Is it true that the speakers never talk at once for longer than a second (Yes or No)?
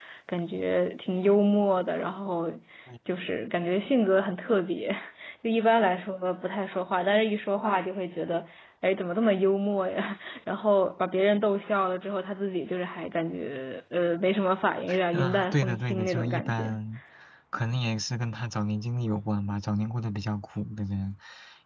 No